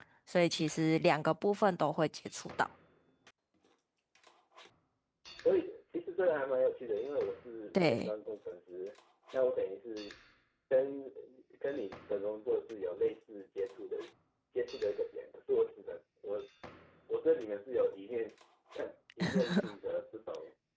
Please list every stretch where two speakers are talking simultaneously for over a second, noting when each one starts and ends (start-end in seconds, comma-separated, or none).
none